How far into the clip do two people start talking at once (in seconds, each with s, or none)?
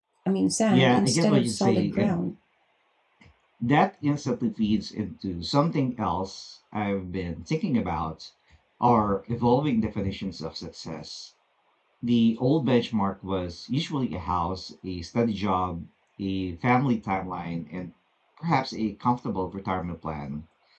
0.7 s